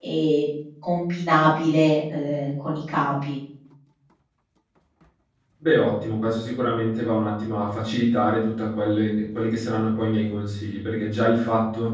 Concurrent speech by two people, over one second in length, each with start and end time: none

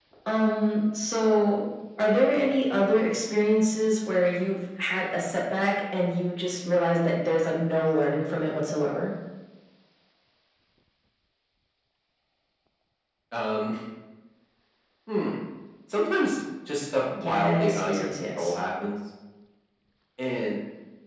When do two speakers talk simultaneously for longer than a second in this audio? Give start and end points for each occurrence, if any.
17.2-18.5

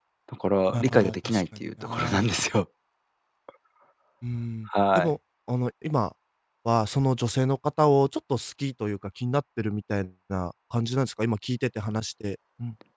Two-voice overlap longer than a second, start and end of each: 0.7-2.2

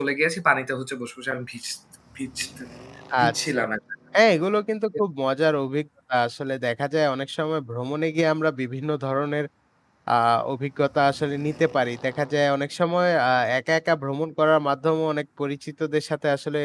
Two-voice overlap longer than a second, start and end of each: none

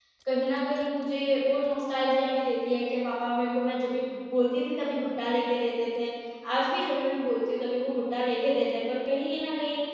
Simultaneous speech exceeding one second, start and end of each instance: none

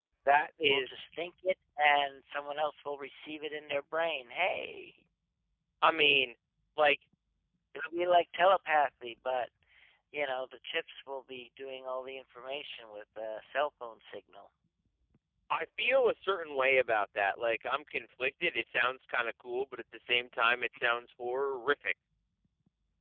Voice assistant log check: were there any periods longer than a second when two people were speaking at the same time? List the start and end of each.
none

